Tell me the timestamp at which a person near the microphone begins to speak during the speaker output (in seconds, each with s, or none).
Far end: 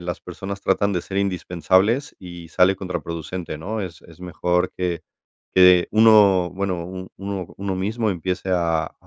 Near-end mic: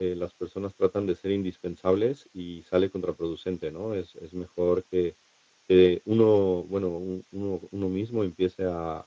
none